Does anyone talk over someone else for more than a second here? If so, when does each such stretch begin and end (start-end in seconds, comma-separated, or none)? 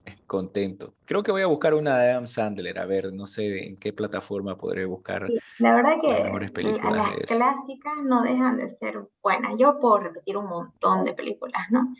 6.1-7.4